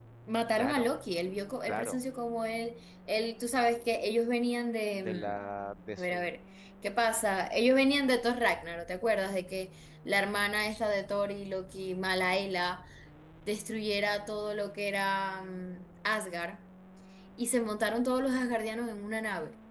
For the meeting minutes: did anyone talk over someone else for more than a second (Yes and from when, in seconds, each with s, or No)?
No